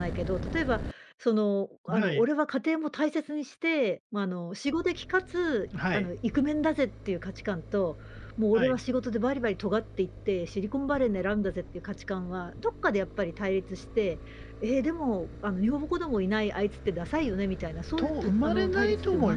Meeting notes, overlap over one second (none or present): present